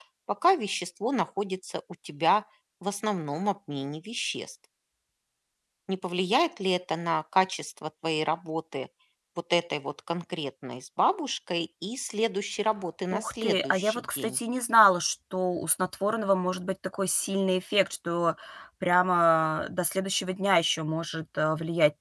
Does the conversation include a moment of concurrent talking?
Yes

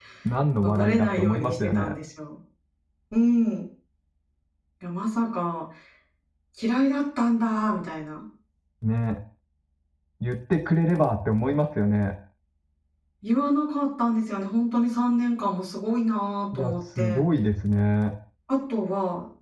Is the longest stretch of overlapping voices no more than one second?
No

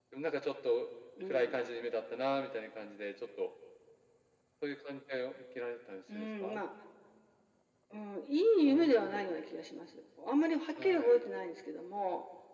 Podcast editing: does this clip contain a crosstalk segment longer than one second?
No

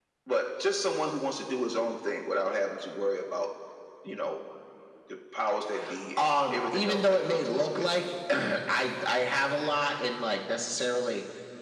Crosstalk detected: Yes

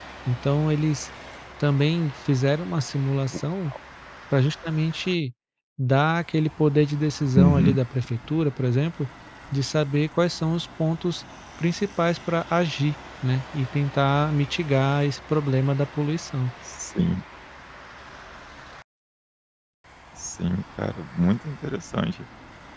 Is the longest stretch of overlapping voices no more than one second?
Yes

